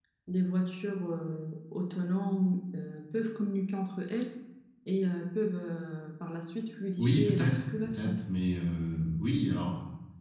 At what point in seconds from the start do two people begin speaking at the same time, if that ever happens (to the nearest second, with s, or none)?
7 s